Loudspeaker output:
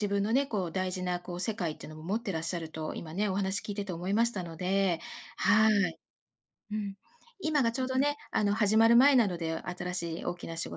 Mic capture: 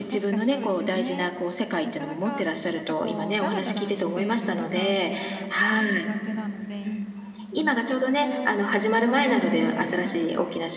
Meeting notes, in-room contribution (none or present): present